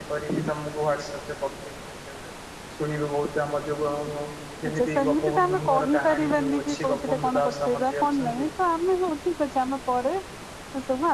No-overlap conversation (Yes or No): No